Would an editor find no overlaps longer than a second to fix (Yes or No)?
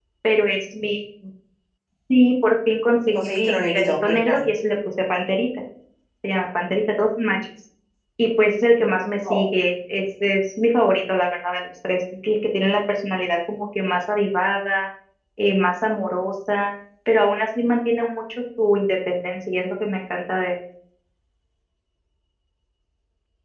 No